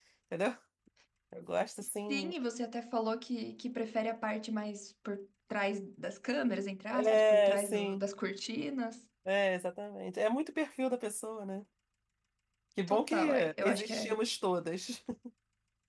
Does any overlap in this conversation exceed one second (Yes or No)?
Yes